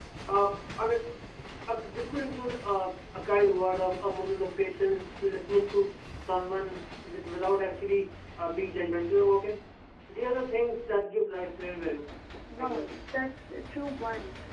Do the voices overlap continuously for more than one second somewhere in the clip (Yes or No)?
No